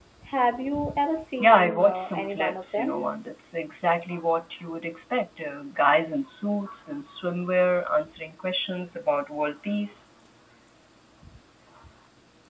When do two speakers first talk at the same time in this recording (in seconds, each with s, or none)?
1.4 s